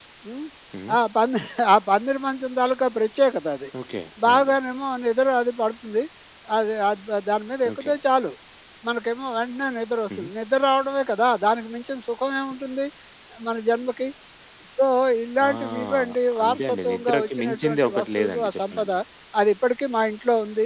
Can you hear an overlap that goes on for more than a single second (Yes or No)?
Yes